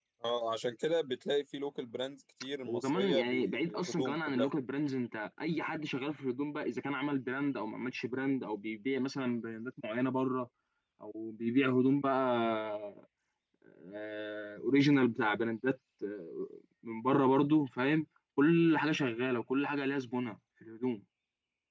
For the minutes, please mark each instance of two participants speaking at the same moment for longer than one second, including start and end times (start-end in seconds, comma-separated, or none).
2.6-4.5